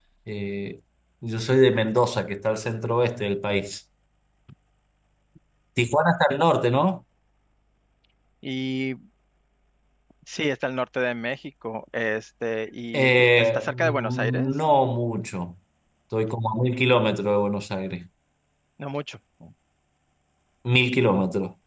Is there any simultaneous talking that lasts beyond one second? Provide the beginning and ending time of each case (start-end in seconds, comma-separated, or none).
12.9-14.5